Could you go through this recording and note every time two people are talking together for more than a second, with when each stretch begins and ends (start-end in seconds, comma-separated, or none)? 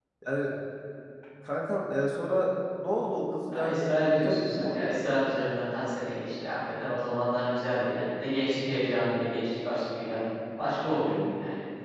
3.5-5.0